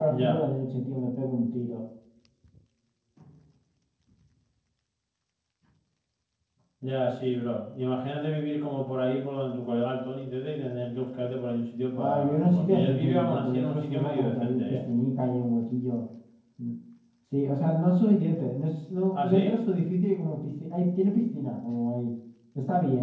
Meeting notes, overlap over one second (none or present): present